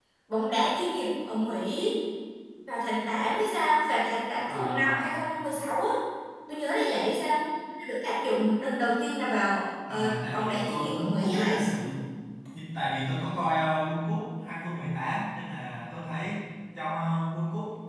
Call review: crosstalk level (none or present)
present